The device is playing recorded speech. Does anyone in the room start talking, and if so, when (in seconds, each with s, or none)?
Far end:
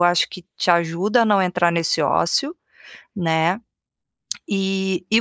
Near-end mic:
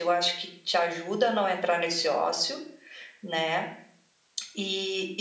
none